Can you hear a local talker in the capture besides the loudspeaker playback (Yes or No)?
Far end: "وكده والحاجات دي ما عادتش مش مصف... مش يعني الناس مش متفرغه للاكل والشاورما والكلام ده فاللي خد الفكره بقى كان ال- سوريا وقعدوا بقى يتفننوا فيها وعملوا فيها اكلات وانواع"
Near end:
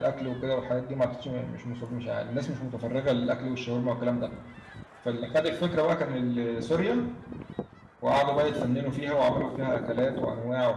No